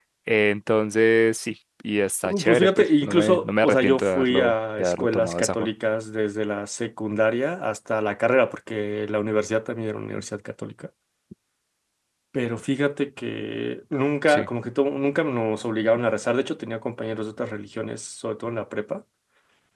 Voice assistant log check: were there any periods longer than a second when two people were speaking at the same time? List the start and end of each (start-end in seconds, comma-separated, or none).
2.4-5.7